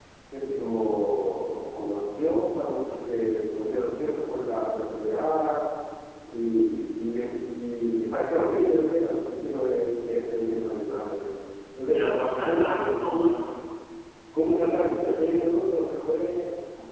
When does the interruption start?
11.9 s

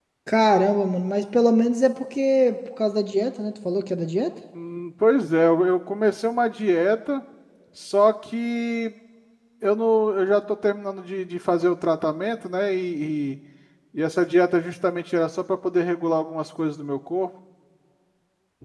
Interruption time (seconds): none

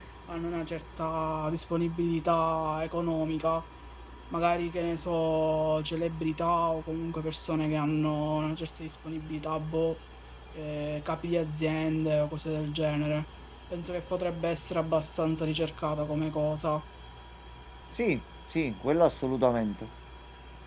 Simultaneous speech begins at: none

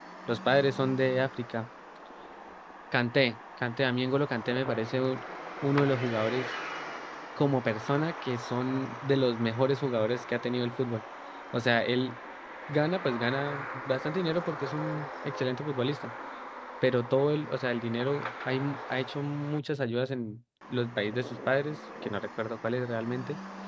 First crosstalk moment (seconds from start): none

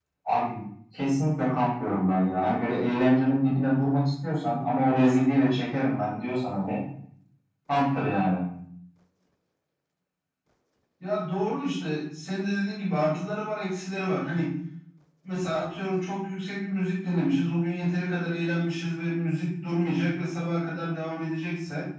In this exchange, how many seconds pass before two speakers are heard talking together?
none

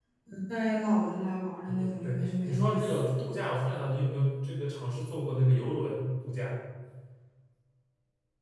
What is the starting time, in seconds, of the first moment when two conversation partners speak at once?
1.6 s

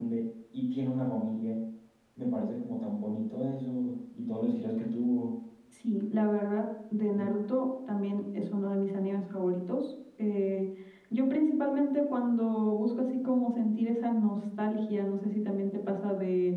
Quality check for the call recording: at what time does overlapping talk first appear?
none

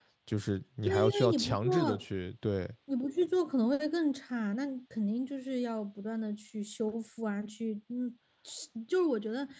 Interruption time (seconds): 0.8 s

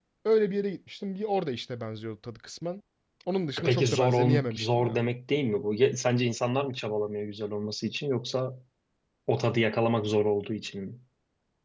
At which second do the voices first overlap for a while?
3.6 s

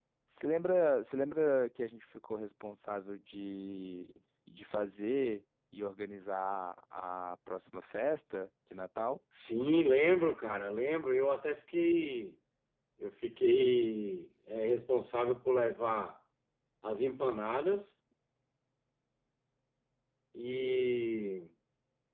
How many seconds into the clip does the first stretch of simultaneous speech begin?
none

